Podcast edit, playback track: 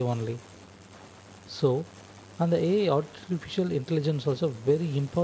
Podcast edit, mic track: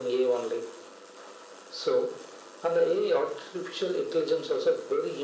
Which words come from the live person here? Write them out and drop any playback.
none

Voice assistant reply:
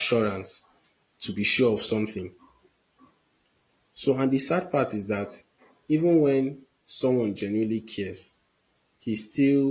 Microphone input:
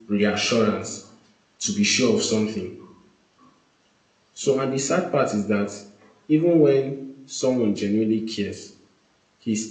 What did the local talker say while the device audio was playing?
none

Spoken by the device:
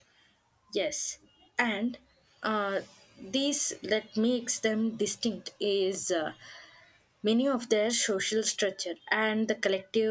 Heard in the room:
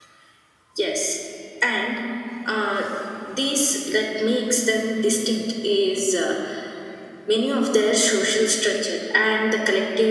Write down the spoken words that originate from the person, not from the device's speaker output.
none

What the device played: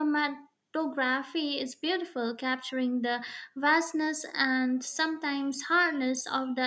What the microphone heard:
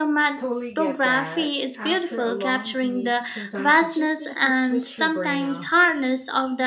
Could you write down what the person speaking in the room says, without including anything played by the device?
Totally get that. After a long week, sometimes you just need to switch your brain off.

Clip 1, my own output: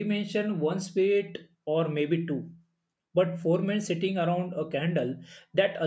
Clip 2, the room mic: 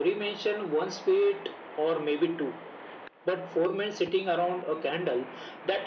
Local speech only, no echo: none

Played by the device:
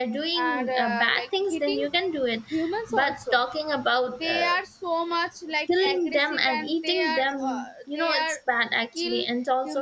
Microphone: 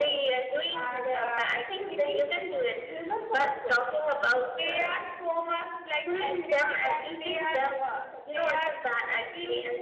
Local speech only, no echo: none

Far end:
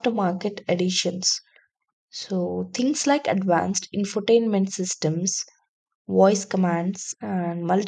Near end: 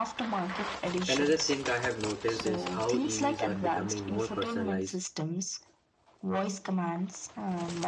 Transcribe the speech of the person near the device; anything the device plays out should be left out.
Another thing I have noticed is how EVs are becoming more personalized.

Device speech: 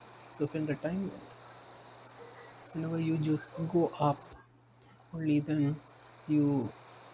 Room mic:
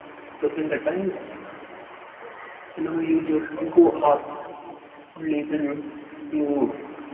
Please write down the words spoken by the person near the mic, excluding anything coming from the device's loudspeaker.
none

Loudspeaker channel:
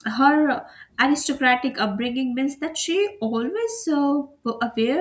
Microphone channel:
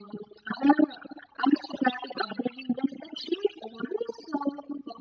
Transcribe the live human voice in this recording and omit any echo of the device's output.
none

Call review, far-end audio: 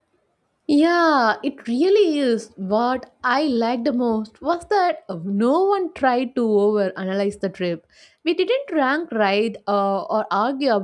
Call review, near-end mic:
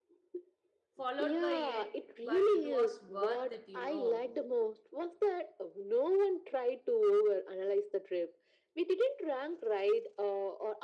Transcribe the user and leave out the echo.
followed by it, but it was worth it, you know.

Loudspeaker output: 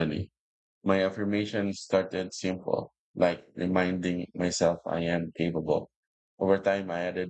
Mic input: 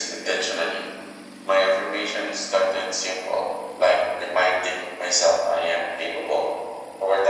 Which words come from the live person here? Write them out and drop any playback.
none

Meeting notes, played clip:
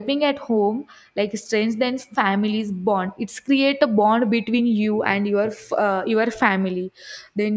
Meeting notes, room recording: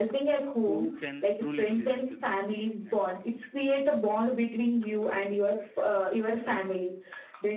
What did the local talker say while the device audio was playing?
who can truly listen to them and

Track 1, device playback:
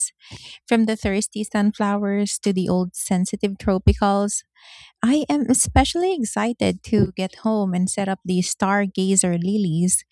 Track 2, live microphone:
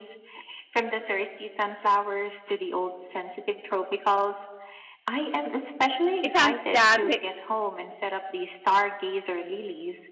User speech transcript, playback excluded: it adds that

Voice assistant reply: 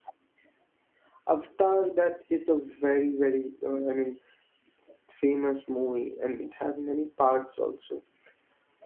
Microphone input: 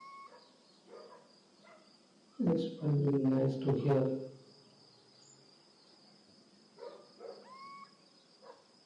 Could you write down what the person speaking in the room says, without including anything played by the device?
It's very nice to hear.

